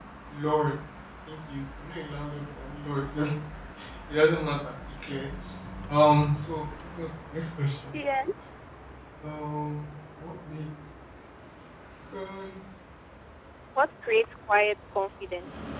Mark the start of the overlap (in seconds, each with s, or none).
none